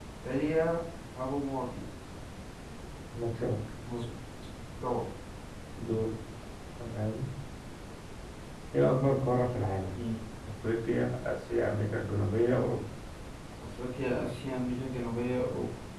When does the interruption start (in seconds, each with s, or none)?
none